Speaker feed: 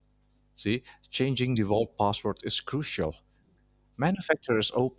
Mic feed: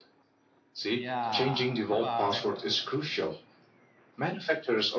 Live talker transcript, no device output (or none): Yeah. Bye bye.